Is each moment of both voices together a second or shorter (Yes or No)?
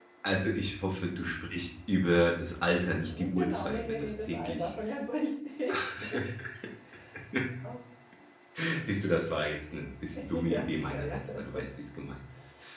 No